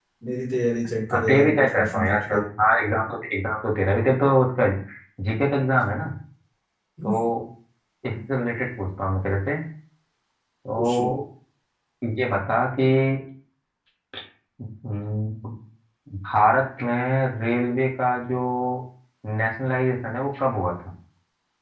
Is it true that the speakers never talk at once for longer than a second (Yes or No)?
No